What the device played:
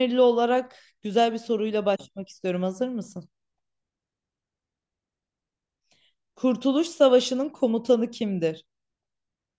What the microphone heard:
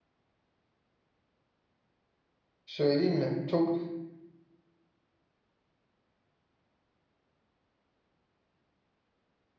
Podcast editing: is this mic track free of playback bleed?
Yes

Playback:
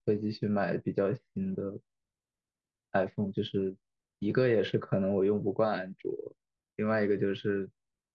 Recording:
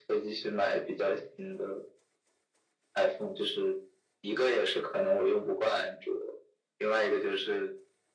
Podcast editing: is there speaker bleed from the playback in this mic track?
Yes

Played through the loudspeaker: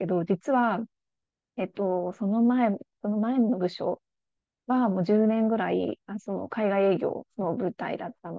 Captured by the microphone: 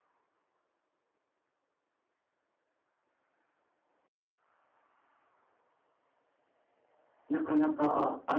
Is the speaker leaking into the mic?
No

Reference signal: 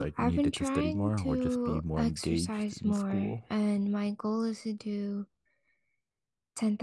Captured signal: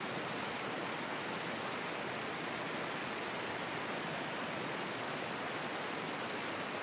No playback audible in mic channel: Yes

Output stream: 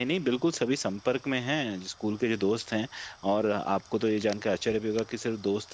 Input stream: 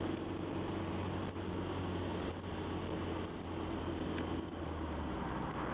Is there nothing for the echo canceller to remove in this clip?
Yes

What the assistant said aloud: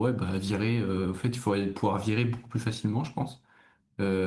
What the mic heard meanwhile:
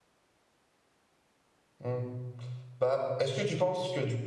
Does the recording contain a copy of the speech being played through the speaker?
No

